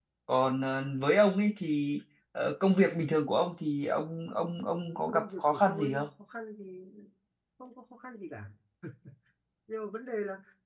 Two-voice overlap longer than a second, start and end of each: 4.8-6.1

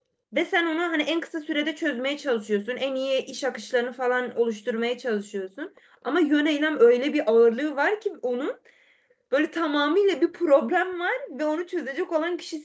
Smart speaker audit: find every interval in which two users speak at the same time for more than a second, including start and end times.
none

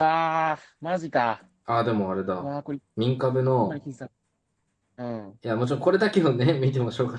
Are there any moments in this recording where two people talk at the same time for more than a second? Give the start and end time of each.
none

